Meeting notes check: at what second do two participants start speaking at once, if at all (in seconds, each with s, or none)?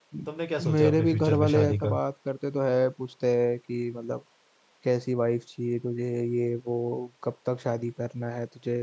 0.7 s